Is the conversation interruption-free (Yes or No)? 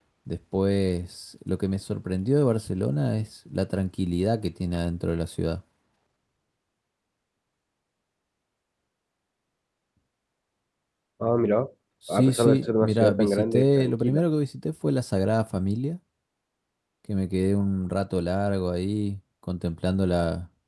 No